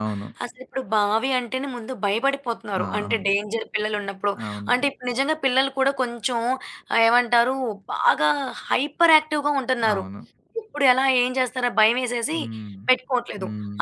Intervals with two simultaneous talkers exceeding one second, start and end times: none

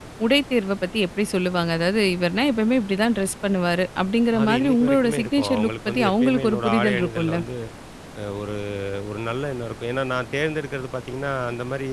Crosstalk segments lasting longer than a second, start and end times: 4.4-7.4

